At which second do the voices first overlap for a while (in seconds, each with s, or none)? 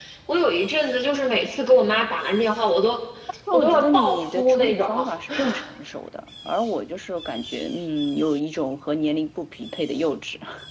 3.5 s